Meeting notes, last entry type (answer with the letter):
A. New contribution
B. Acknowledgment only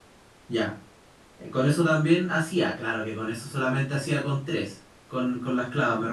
B